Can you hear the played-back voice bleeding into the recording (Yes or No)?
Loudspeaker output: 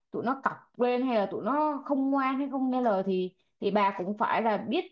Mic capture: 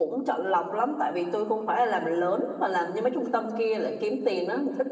No